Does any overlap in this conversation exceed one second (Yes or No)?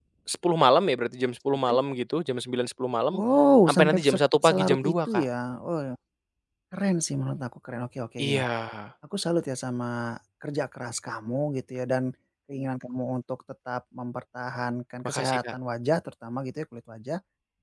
Yes